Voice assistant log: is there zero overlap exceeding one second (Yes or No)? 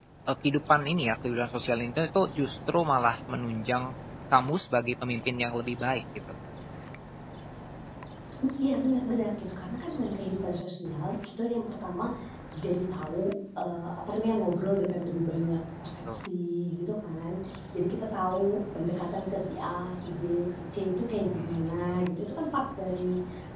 Yes